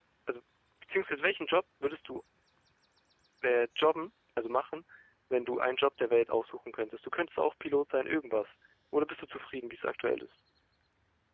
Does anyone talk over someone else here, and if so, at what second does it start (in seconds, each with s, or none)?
none